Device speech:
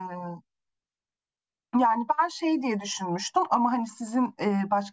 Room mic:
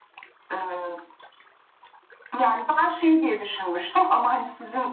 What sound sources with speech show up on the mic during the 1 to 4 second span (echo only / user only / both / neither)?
echo only